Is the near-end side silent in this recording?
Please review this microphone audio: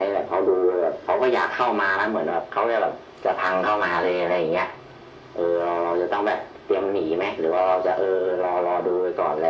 Yes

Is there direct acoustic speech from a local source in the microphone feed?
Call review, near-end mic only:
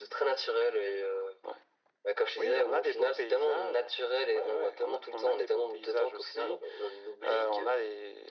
No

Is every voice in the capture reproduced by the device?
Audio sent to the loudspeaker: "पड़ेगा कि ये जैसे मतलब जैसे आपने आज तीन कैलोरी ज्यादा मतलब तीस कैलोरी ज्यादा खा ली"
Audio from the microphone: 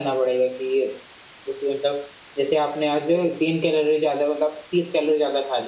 Yes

